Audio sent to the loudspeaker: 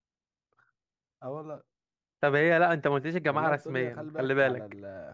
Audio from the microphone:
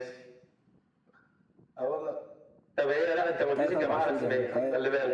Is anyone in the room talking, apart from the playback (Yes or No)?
Yes